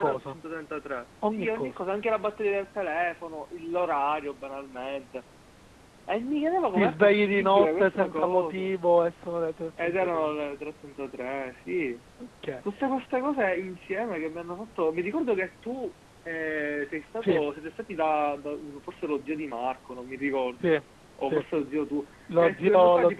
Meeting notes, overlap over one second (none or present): present